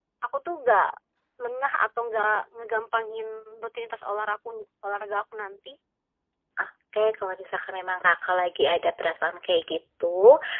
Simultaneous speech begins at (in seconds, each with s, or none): none